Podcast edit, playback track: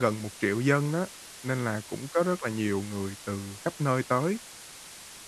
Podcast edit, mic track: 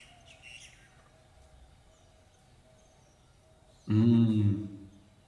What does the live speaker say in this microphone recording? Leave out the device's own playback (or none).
Ừm.